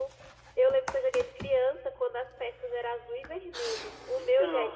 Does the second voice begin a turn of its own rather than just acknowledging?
No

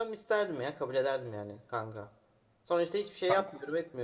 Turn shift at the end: No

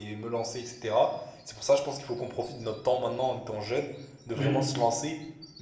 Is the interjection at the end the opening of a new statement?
No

